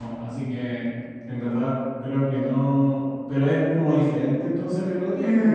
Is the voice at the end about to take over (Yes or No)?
Yes